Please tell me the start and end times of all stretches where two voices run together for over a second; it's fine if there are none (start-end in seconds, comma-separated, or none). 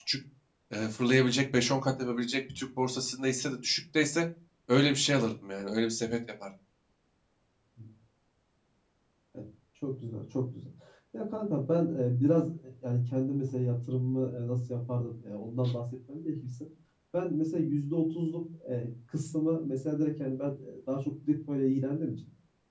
none